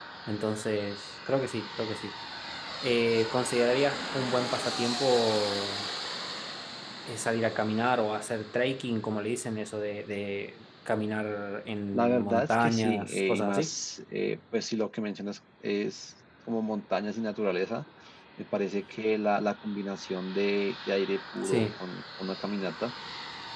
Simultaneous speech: Yes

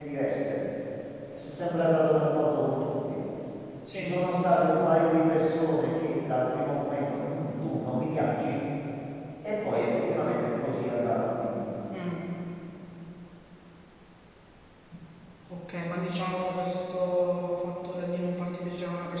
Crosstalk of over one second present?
No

